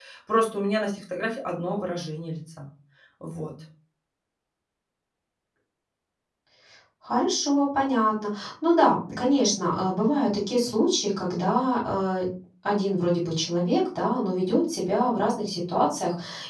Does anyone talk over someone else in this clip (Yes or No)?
No